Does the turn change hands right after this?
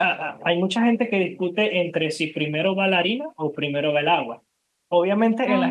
No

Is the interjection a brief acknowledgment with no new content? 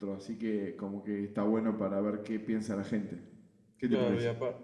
No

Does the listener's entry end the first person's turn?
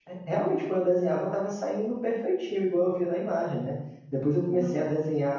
No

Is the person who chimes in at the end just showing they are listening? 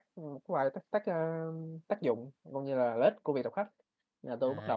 No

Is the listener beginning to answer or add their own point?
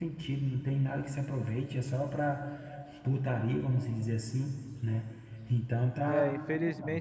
Yes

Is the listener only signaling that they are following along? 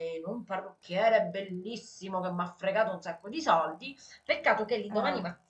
Yes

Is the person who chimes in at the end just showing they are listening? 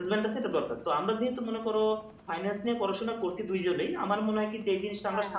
Yes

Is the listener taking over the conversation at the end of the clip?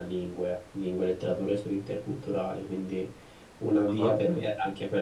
No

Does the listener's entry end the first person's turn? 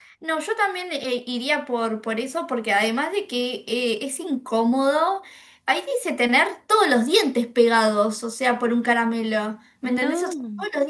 No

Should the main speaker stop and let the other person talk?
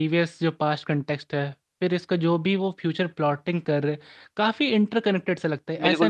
No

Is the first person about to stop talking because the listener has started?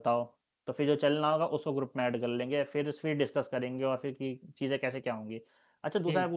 No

